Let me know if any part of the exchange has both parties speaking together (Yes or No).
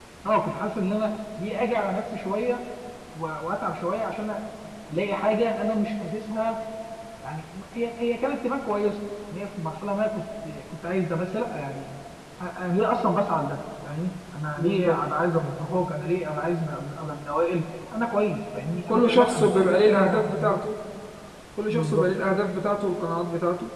Yes